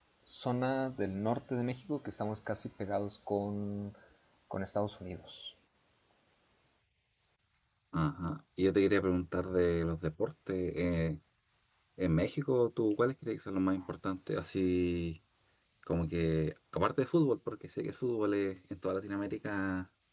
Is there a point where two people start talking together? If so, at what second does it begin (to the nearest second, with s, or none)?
none